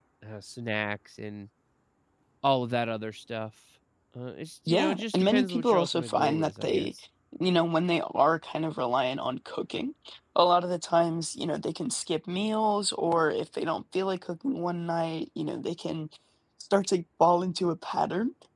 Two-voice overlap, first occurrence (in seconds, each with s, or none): 4.7 s